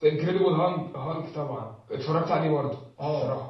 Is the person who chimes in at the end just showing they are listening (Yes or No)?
No